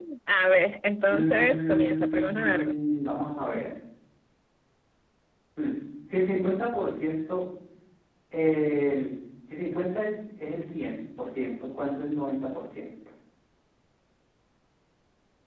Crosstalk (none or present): present